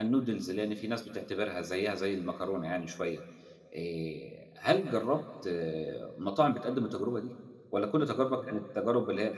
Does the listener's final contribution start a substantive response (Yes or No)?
No